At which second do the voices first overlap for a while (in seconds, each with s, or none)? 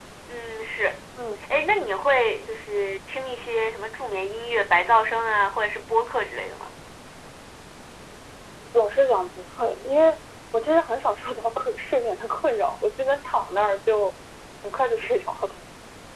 none